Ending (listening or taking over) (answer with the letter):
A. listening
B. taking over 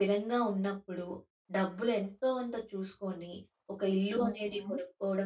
A